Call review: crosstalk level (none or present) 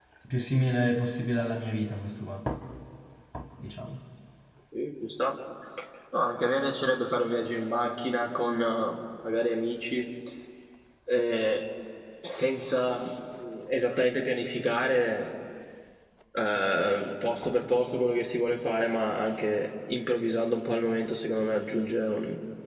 none